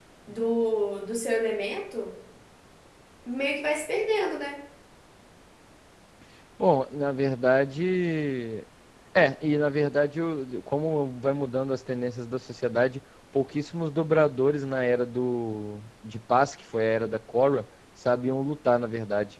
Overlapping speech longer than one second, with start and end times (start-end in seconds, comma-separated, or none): none